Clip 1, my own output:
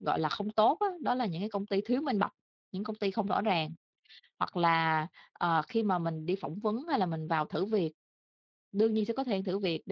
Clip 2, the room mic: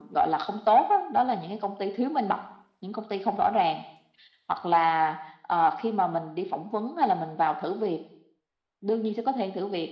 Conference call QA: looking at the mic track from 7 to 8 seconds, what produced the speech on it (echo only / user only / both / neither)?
echo only